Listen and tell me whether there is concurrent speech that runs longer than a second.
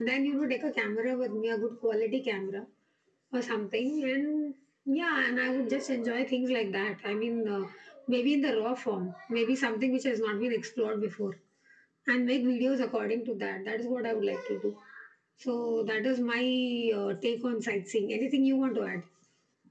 No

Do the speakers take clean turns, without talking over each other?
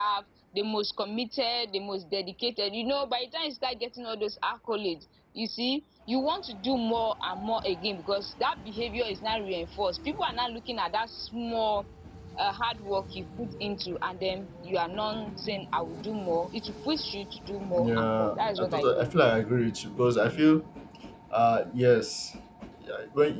No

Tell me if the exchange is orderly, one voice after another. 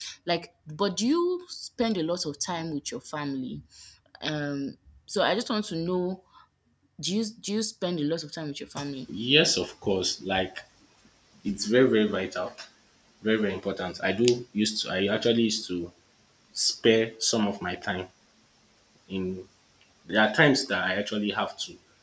Yes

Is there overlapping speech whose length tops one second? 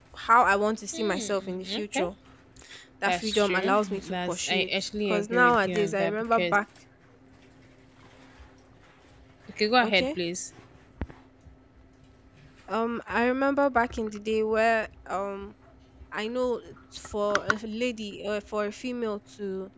Yes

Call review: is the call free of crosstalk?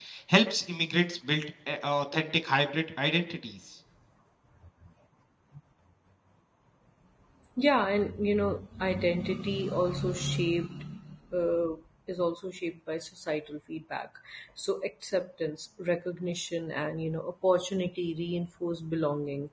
Yes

